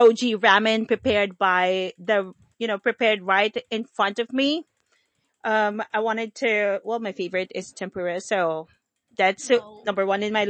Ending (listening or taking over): listening